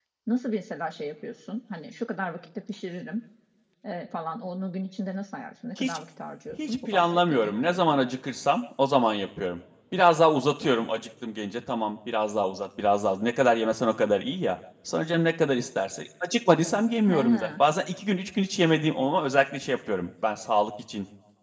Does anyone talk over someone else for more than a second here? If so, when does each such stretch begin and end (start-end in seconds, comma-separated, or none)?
6.5-8.1